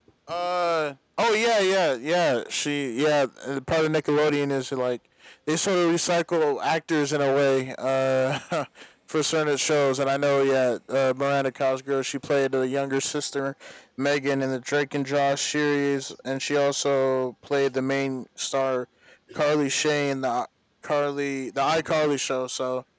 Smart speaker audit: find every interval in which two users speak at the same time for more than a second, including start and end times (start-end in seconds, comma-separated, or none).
none